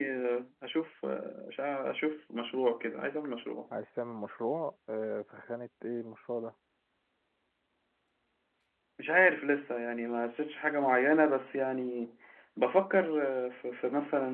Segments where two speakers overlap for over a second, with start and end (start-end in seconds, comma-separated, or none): none